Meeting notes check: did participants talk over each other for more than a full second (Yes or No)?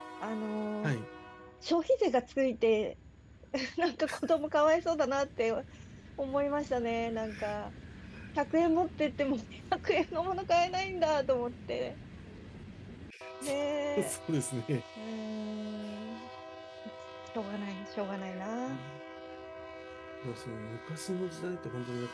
No